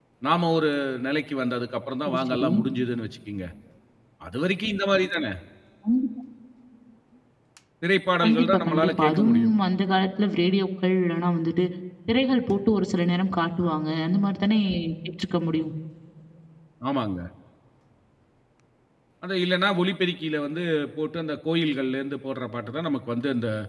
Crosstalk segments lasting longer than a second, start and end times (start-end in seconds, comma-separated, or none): 8.2-9.5